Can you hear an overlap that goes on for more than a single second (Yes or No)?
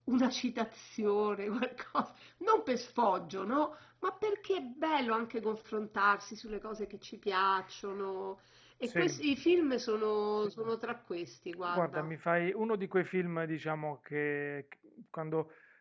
No